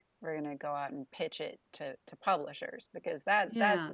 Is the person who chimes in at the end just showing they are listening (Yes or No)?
Yes